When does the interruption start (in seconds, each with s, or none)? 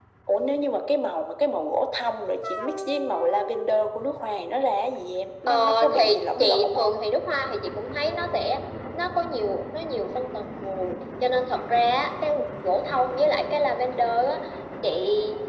5.5 s